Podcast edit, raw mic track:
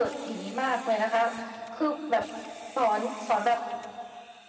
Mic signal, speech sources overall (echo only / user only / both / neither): echo only